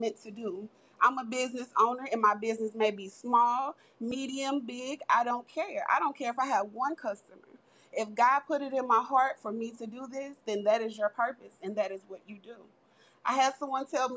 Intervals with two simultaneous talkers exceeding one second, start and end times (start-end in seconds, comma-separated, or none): none